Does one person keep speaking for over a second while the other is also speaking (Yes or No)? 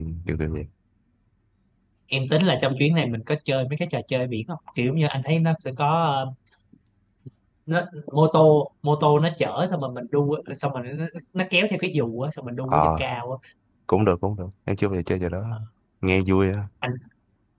No